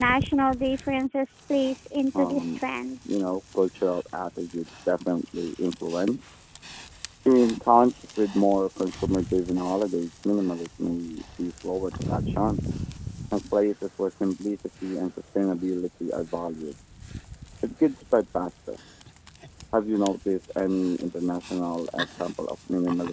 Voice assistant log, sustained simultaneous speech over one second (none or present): none